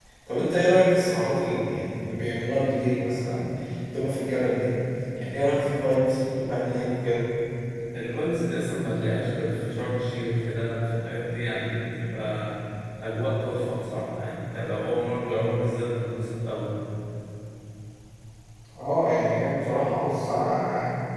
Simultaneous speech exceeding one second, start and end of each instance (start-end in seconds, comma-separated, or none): none